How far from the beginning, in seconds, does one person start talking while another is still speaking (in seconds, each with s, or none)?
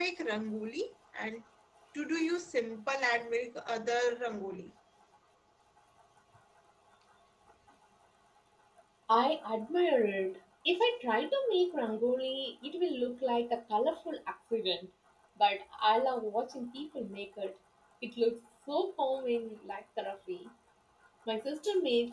none